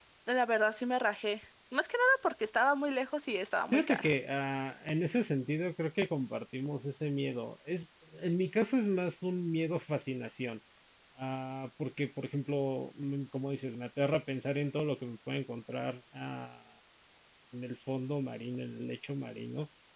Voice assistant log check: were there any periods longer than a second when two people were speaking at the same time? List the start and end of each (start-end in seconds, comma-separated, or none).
none